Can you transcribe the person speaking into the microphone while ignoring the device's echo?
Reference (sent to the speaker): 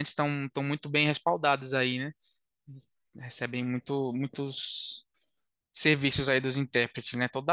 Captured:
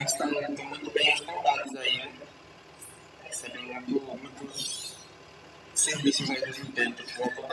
none

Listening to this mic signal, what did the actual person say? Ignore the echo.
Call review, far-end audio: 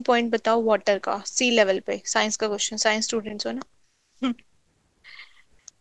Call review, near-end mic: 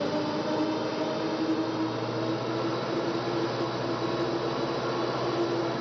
none

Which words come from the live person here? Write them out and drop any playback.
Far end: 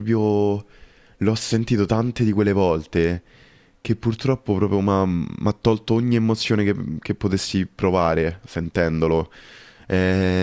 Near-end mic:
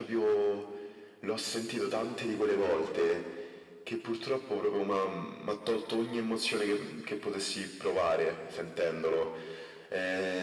none

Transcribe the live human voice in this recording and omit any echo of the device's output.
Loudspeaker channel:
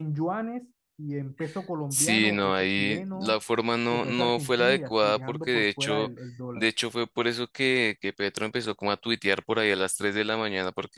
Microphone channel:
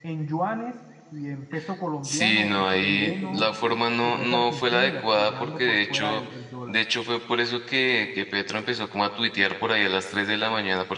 de libre comercio

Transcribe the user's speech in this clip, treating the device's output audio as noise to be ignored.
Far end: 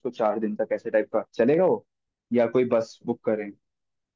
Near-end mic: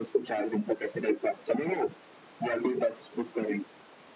none

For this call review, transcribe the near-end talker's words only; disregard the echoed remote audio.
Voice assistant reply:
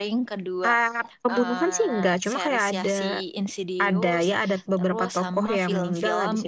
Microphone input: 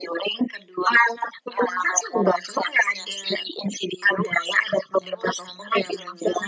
none

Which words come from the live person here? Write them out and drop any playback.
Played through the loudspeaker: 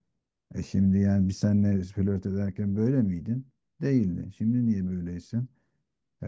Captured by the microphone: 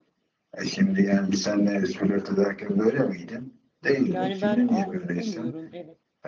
Yani ben anlayamıyorum evet.

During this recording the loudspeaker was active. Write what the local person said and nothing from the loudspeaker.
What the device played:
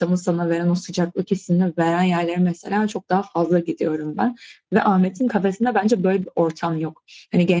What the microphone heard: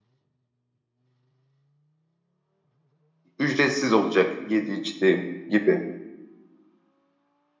ücretsiz olacak yedi içtiği gibi.

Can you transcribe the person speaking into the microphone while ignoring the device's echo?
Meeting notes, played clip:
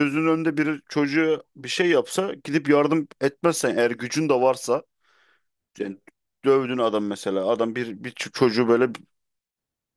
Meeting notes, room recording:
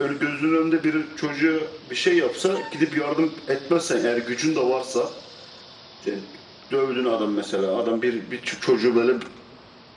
none

